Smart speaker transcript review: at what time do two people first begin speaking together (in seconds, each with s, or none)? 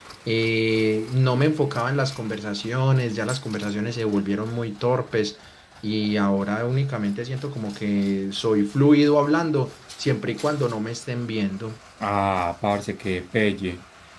none